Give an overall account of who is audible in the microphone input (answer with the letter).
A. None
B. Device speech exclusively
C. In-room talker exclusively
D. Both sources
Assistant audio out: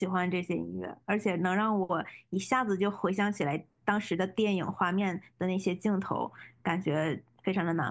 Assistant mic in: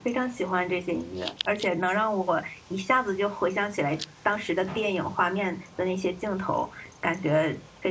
B